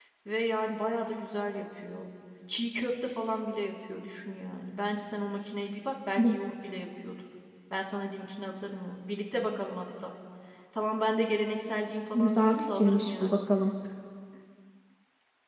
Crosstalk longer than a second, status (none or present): present